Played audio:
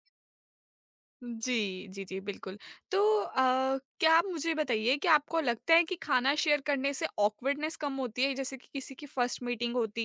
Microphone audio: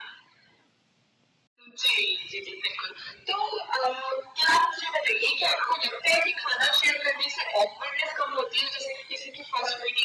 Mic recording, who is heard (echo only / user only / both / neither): echo only